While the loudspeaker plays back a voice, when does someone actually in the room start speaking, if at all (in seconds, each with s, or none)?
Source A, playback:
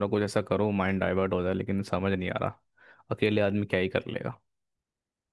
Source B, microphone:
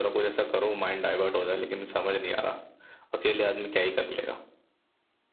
none